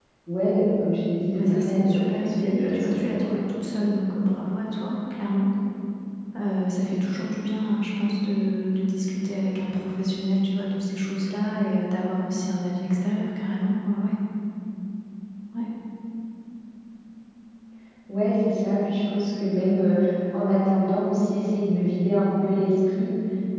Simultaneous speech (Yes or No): Yes